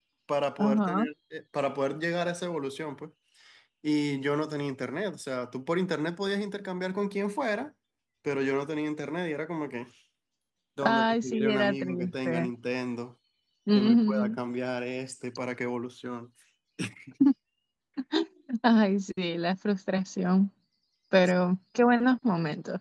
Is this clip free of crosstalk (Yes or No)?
No